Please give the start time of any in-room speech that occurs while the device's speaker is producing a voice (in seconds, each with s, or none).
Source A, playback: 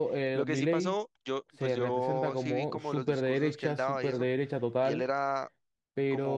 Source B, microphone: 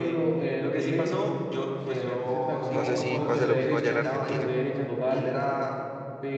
2.7 s